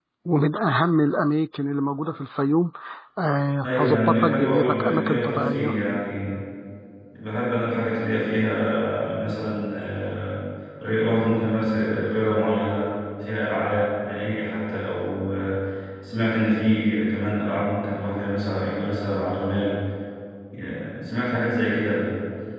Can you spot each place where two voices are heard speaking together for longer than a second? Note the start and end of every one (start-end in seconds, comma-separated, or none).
3.6-5.8